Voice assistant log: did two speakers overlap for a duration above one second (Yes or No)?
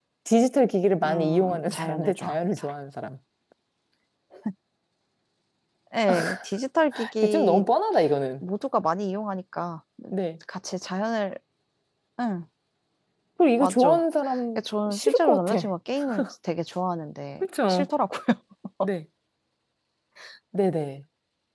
Yes